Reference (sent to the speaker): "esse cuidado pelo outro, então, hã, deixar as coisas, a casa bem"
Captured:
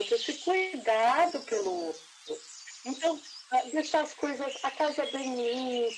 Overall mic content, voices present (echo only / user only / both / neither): echo only